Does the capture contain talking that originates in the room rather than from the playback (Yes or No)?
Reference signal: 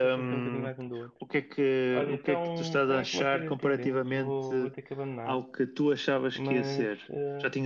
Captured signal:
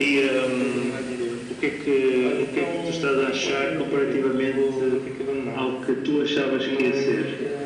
No